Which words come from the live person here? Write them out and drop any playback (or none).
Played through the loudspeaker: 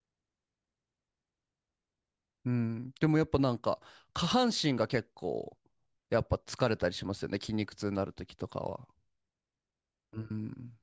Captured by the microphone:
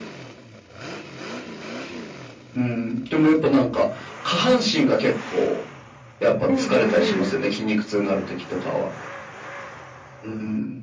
うん、うん、うん。